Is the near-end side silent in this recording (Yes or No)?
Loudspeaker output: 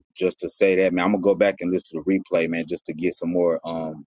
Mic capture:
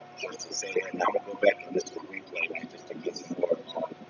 Yes